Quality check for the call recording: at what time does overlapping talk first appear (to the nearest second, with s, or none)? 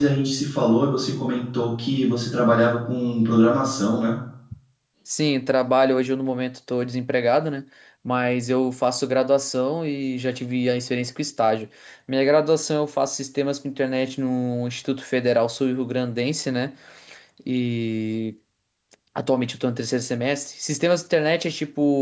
none